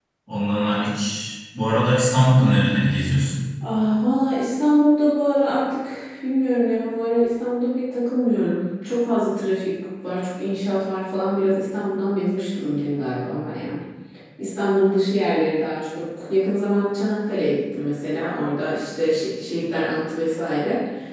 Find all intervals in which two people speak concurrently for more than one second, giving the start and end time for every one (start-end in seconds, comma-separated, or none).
none